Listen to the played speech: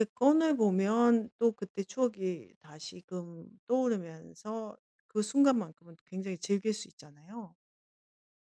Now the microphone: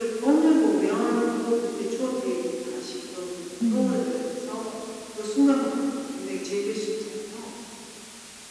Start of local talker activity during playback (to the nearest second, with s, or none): 4 s